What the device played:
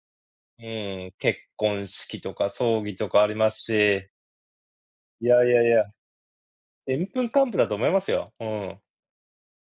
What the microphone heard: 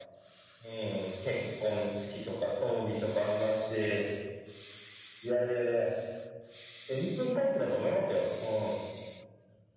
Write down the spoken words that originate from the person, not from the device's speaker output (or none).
none